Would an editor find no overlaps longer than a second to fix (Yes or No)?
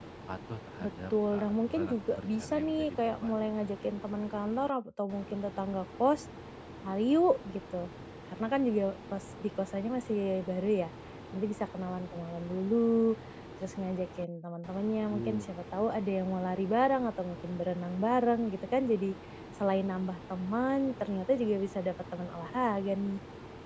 No